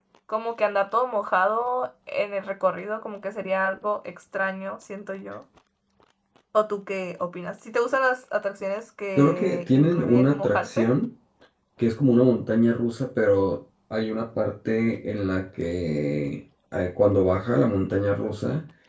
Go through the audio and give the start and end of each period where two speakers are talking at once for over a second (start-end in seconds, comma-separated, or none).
9.2-10.9